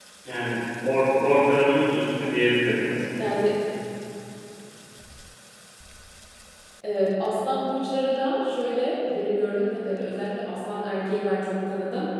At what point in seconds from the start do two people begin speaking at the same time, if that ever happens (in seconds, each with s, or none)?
none